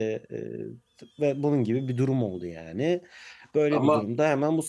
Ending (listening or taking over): listening